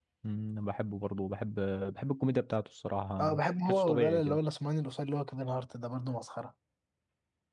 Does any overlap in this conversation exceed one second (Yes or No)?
Yes